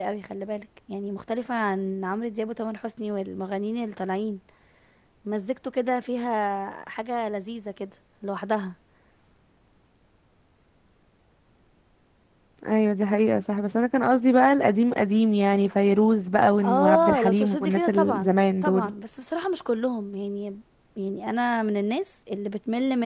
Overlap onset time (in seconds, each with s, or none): 16.6 s